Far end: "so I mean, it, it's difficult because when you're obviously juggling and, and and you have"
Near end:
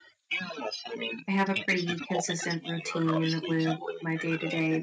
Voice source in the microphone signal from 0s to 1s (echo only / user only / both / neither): echo only